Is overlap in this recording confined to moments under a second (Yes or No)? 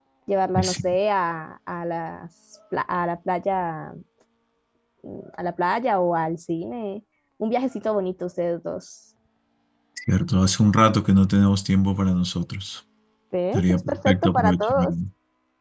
No